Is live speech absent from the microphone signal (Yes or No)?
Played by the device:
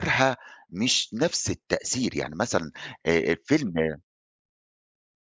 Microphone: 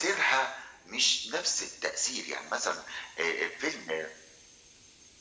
Yes